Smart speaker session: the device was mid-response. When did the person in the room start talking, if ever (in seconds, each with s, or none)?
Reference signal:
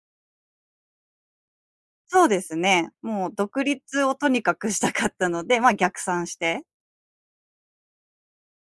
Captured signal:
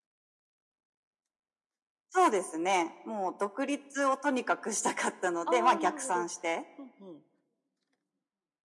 5.4 s